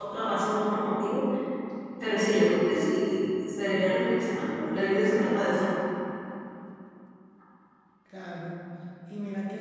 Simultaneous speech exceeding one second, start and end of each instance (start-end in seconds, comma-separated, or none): none